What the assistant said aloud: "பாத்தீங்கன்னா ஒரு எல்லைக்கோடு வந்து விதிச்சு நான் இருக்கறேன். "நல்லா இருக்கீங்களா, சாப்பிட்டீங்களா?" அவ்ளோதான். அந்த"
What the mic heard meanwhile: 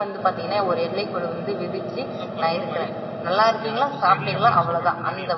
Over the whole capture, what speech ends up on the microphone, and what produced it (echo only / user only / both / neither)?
both